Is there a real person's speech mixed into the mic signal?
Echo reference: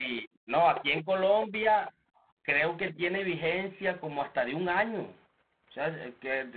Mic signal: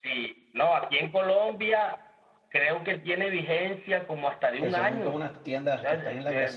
Yes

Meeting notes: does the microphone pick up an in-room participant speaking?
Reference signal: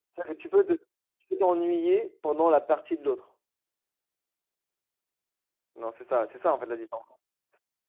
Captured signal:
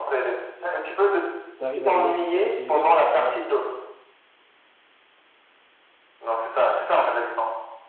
Yes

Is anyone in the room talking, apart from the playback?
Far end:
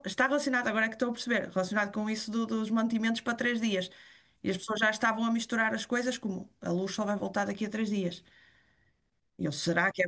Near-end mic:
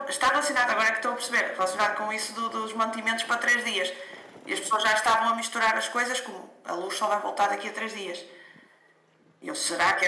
No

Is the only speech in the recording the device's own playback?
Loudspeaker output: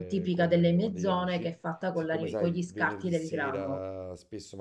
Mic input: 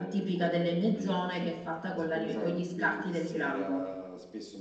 Yes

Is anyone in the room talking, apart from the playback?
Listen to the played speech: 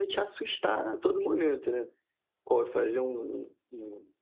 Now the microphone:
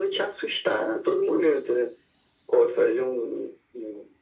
No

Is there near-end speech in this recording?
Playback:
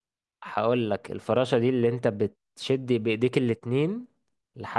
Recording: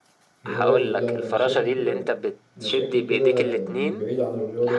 Yes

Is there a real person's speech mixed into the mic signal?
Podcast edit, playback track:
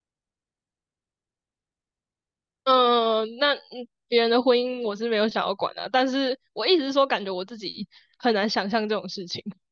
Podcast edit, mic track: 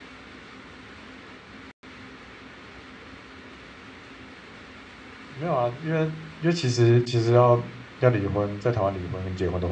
Yes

